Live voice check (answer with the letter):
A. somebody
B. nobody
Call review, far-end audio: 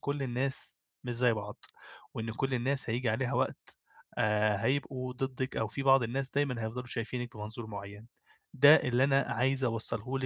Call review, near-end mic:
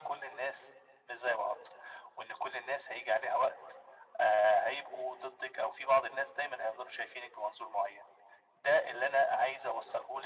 B